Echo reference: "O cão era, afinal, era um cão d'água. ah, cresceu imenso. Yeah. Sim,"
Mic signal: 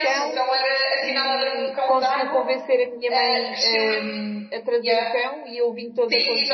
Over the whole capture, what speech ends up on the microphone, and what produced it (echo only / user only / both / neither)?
both